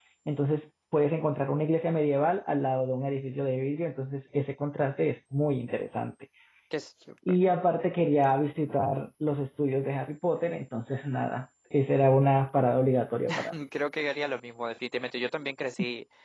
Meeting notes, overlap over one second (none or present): none